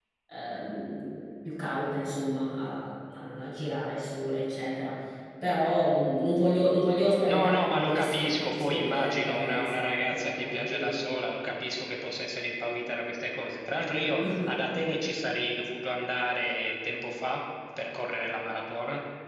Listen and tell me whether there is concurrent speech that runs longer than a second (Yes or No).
Yes